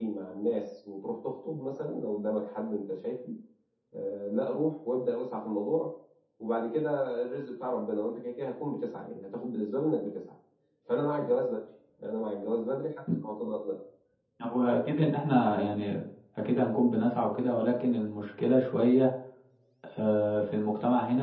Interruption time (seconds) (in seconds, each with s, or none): none